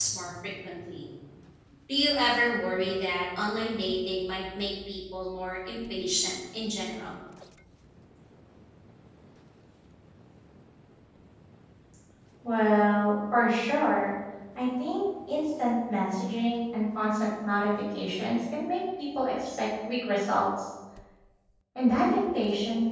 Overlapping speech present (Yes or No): No